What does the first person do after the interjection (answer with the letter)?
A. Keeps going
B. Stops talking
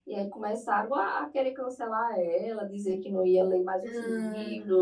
A